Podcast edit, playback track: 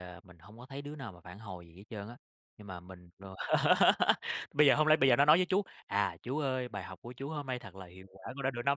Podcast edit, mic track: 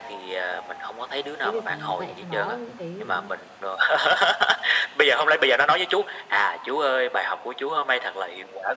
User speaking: Yes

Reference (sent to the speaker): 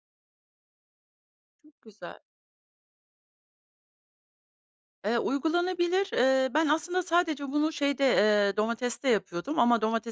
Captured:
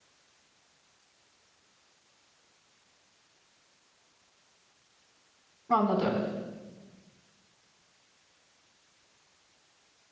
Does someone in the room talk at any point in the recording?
Yes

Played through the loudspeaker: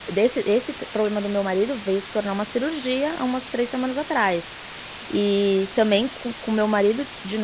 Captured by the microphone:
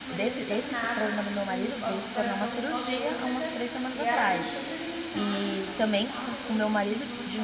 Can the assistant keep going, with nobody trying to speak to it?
No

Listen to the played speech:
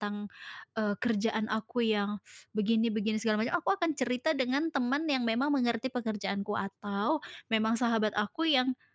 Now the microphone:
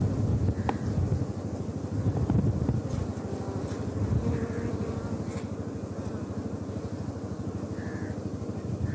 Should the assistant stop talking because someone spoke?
No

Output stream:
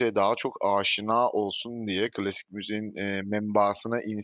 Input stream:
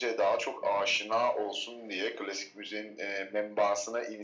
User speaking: No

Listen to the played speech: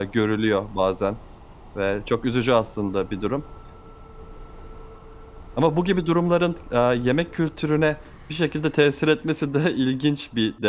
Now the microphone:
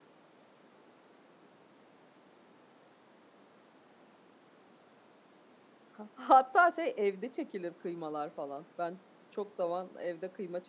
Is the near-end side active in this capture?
Yes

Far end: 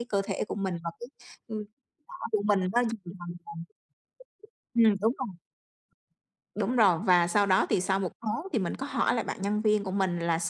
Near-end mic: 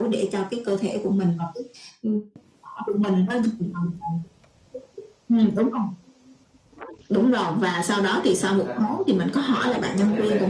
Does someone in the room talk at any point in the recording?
Yes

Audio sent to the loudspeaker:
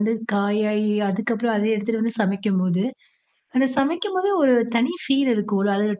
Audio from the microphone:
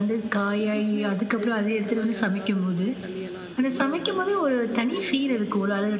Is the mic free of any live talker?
No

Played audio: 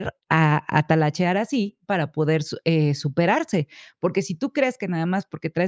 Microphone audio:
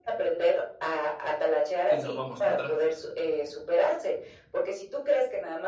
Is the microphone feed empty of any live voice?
No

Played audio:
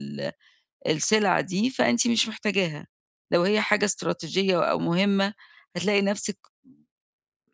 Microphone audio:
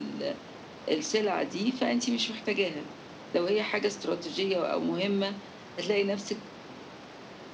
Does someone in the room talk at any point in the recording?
No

